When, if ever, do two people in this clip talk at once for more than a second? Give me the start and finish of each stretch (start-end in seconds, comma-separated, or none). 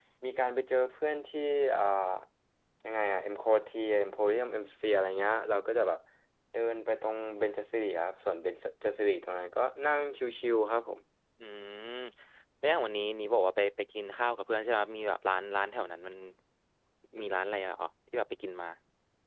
none